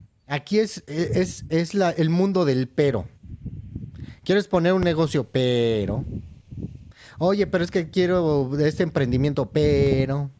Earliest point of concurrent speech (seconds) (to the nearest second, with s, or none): none